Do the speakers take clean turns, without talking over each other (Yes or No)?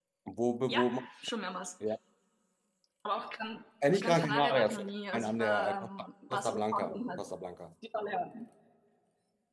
No